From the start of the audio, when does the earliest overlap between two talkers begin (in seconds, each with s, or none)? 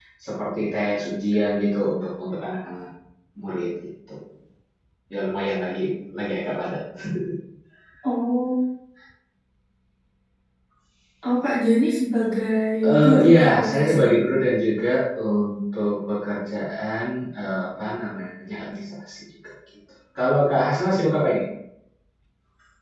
12.8 s